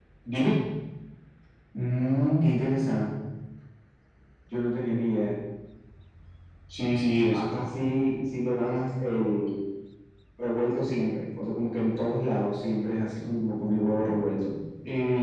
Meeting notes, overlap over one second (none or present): none